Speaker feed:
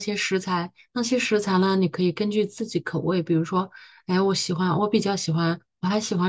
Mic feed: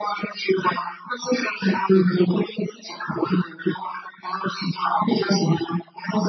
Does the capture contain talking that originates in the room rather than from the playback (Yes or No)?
No